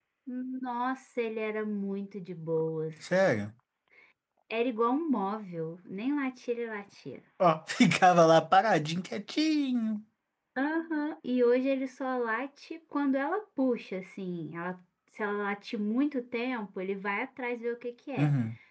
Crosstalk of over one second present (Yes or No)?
No